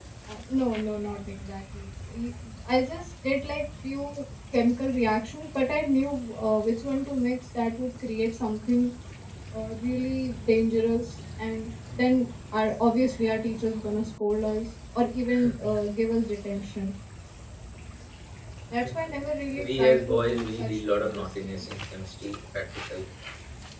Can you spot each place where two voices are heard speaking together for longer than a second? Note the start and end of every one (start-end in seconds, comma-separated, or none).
19.6-21.7